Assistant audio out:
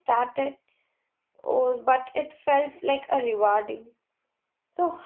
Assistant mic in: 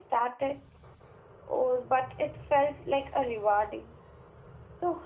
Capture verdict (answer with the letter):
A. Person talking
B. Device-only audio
B